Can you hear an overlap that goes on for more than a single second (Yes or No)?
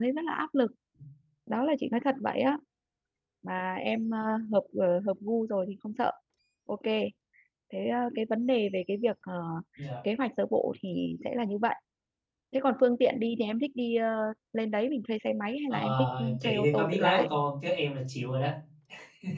Yes